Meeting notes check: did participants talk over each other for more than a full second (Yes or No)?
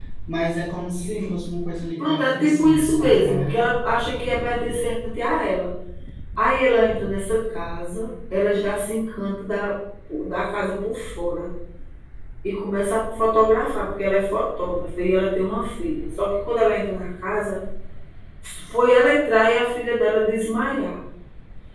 Yes